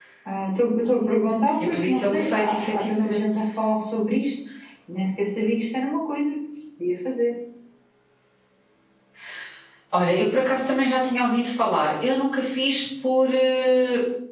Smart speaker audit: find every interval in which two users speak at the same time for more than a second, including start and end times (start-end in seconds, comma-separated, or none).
1.7-3.2